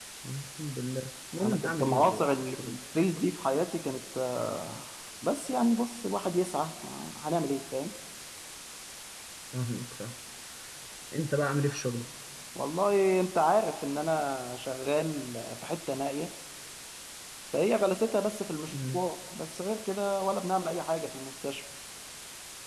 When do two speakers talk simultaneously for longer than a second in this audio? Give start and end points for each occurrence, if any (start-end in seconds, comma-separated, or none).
1.4-2.8